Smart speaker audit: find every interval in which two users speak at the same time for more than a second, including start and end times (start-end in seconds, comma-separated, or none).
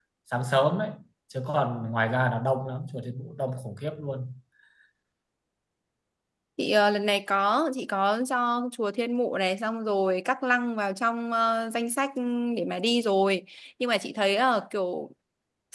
none